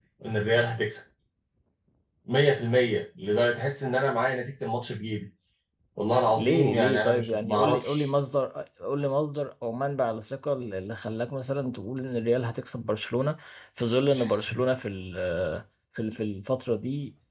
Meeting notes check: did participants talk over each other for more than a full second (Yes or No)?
Yes